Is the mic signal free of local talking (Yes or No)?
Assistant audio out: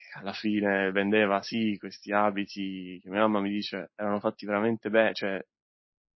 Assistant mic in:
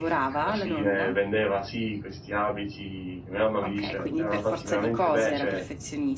No